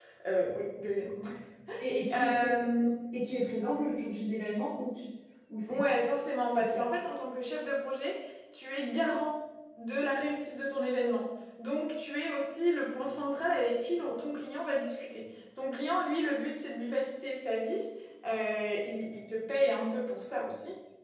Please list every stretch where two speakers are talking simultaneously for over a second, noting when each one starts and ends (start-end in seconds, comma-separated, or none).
none